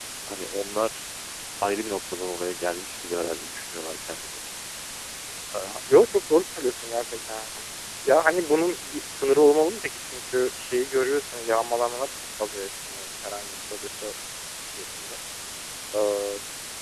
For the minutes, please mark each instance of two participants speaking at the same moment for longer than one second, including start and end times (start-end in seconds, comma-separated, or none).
none